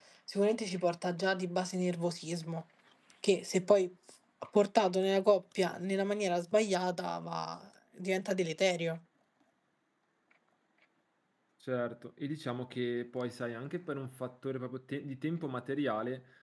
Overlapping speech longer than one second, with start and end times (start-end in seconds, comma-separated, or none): none